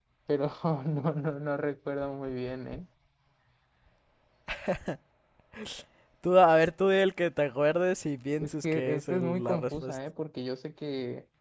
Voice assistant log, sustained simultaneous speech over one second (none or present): present